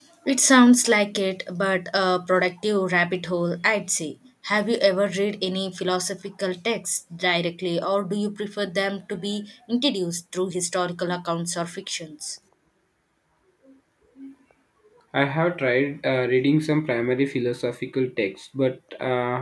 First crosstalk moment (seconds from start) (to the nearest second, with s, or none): none